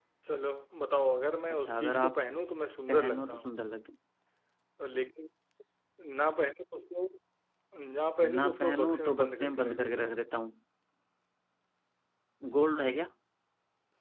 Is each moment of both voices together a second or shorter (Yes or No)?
No